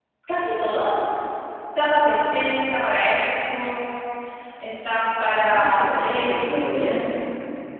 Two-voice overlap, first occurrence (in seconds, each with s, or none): 5.3 s